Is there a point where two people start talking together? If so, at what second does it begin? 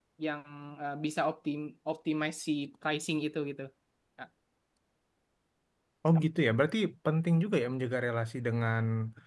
none

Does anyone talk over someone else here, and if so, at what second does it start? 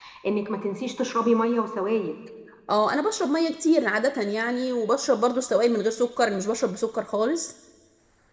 none

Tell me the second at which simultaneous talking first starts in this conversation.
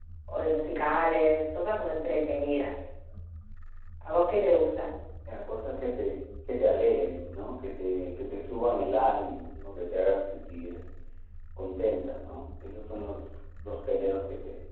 none

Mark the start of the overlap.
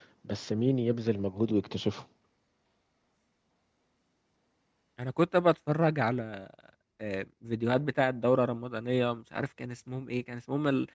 none

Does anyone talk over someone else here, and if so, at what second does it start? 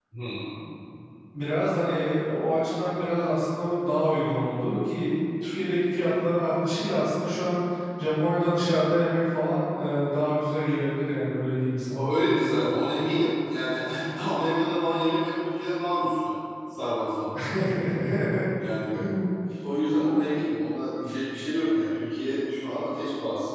none

